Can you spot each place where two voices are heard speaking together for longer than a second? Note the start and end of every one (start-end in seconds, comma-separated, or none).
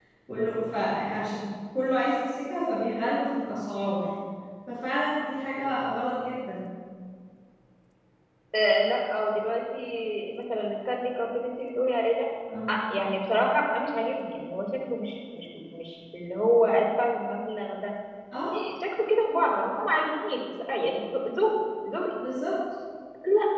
none